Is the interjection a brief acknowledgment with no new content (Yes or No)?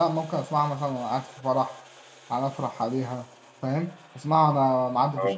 Yes